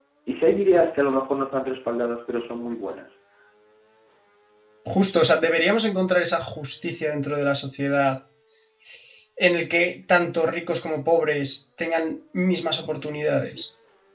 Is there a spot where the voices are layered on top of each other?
No

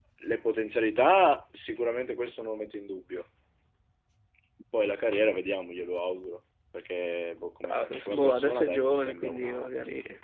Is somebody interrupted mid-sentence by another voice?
Yes, from 7.6 s

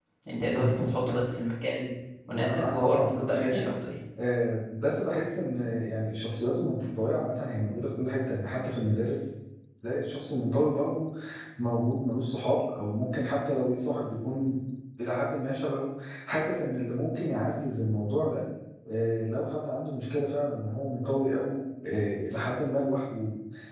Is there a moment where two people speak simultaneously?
Yes, from 2.3 s

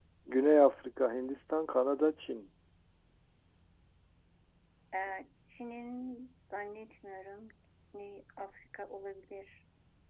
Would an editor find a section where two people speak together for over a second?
No

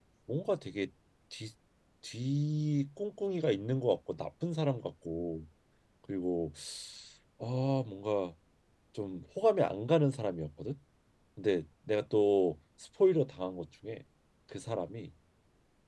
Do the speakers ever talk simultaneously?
No

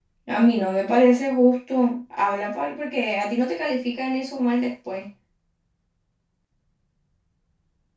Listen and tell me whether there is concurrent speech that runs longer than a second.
No

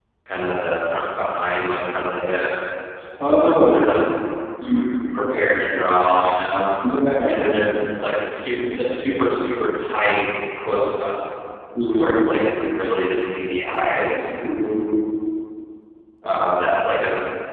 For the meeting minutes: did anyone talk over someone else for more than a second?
No

